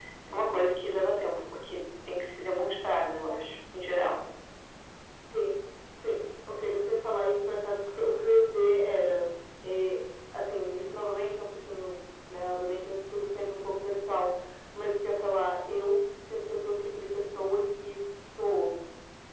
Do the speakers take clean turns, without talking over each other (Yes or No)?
Yes